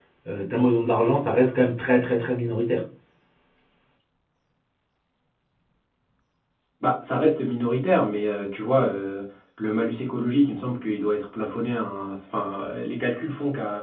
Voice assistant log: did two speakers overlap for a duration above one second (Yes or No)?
No